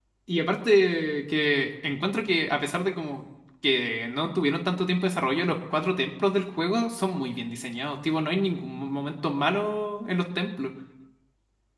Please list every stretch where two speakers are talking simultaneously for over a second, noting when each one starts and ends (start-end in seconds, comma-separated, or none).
none